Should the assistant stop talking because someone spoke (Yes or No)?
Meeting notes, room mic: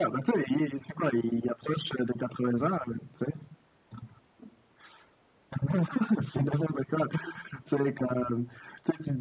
No